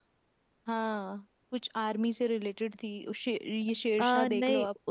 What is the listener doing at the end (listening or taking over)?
taking over